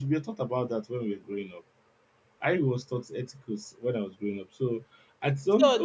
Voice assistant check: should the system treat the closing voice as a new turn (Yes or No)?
Yes